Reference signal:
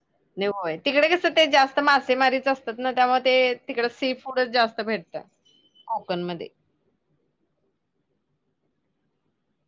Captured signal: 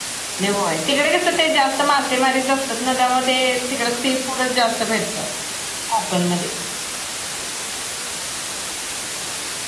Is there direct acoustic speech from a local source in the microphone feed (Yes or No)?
No